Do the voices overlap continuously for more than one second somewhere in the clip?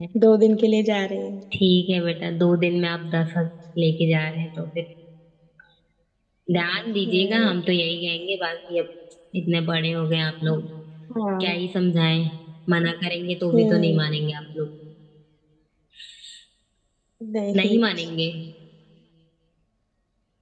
No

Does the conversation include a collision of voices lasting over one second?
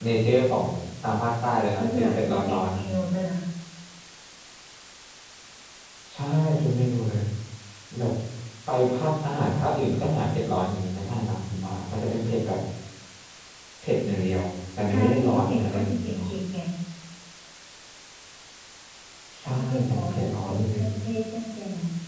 Yes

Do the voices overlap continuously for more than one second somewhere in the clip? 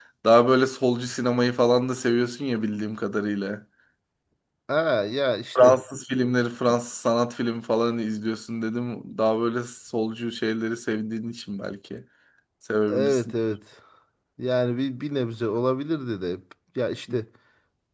No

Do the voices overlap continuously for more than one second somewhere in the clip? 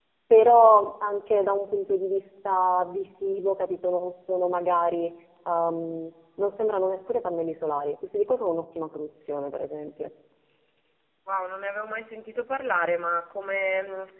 No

